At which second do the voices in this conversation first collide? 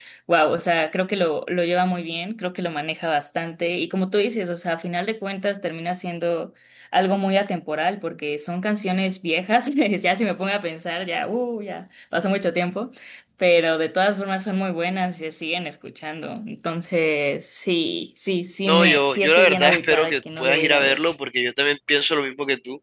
18.7 s

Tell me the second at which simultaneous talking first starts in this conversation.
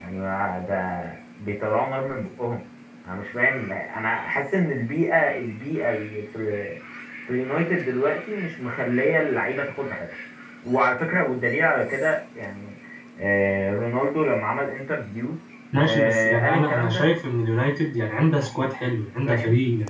15.8 s

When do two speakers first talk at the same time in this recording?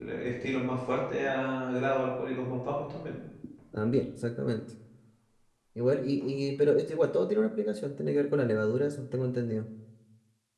none

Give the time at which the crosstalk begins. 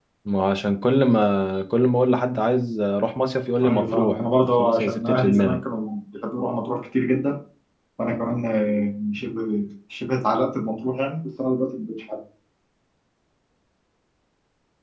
3.6 s

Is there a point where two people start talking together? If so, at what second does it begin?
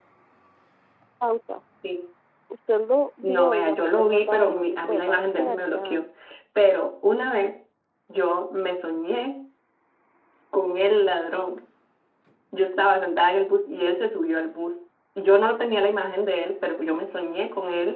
3.2 s

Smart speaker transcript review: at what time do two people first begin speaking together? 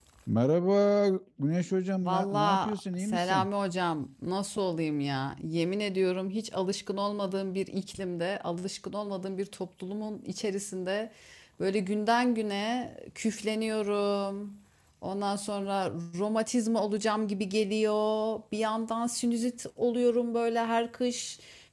2.0 s

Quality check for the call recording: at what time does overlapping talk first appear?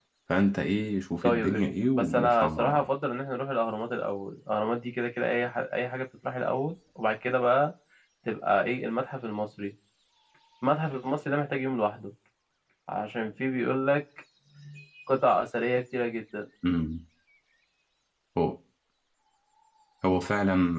1.2 s

